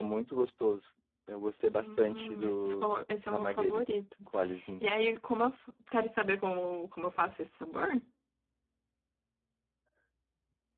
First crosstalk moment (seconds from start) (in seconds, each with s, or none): 1.5 s